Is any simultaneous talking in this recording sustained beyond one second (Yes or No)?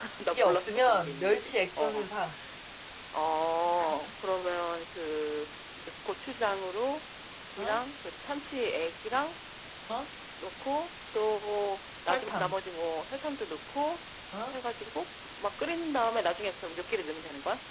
Yes